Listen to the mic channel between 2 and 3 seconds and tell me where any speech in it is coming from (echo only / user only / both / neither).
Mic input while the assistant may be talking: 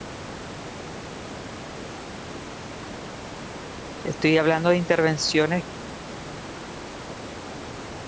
neither